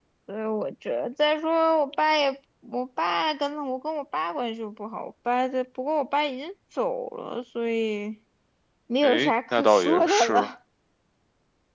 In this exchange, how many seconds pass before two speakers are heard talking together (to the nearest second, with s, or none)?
9 s